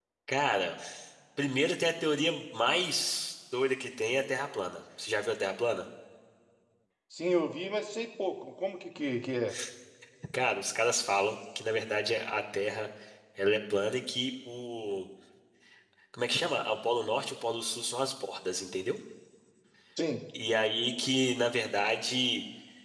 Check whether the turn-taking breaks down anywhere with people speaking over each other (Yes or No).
No